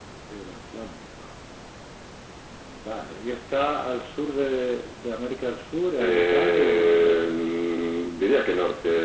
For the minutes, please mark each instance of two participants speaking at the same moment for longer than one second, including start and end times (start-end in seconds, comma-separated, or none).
6.0-7.2